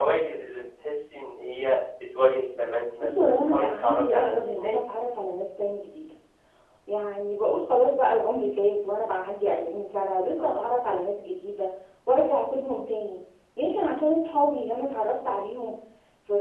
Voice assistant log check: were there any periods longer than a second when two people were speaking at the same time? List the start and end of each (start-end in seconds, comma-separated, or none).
3.0-4.7